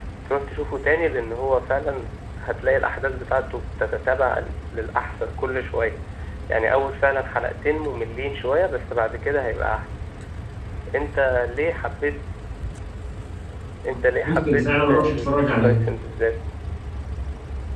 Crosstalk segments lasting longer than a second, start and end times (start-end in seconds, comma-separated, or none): 14.2-15.8